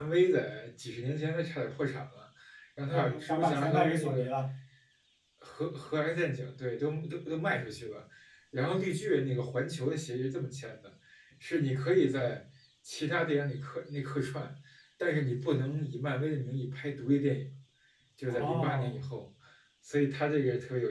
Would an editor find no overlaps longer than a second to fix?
No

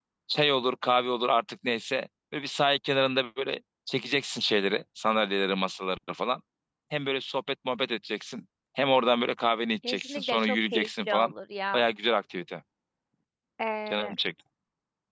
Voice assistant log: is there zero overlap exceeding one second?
No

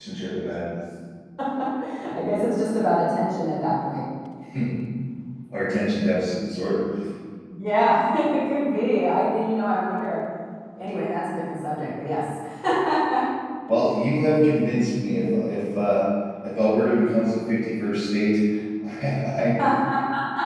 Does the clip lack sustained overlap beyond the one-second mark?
Yes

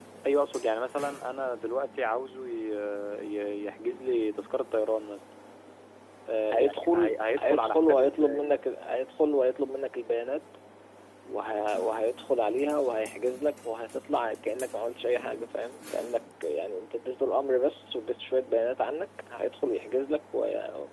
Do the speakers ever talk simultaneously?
Yes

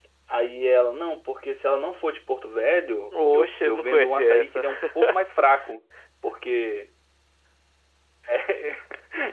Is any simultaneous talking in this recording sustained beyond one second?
Yes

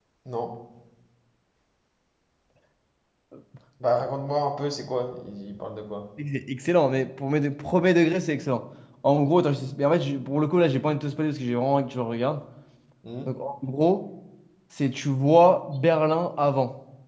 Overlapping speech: No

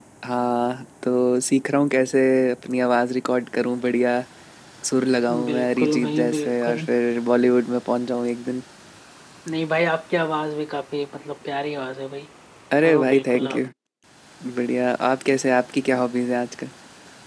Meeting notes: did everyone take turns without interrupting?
No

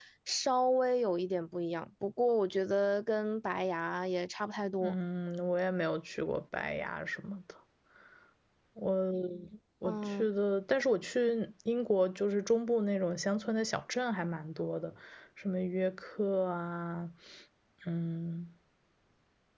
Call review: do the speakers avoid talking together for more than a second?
Yes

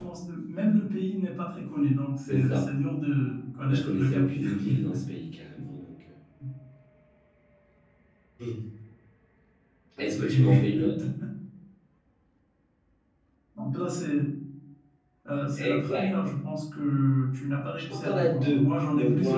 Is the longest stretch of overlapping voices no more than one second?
No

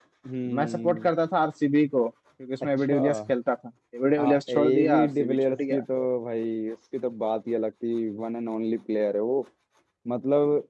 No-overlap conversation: No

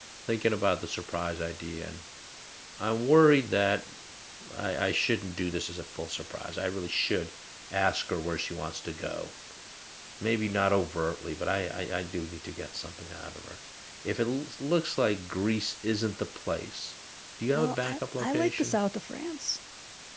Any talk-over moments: Yes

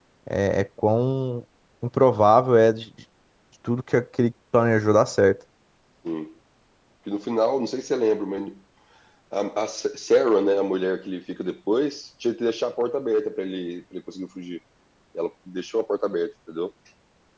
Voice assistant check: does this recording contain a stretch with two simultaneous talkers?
No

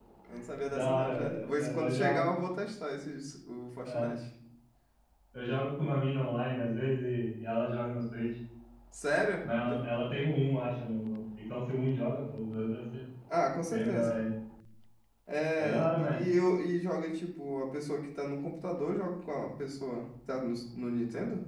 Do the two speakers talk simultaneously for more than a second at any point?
Yes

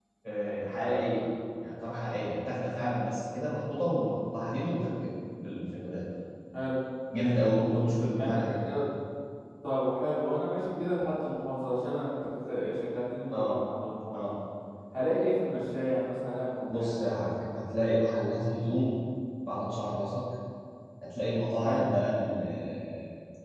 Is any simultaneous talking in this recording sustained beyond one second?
Yes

